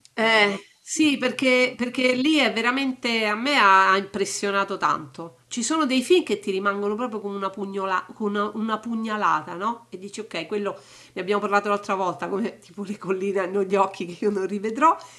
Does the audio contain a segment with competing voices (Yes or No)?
No